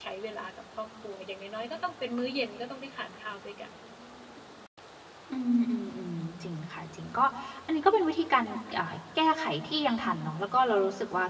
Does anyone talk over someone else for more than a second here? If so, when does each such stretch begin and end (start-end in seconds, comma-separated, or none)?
none